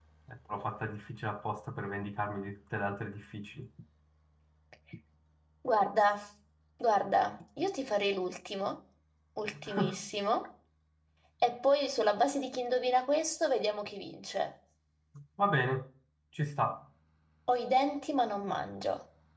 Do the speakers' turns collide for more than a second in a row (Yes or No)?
No